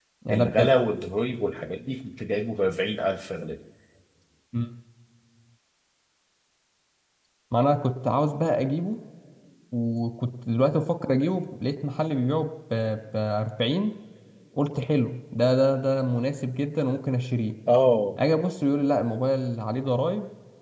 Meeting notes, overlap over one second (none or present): none